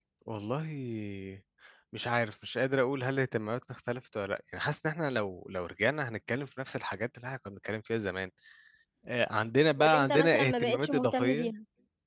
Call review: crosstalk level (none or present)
present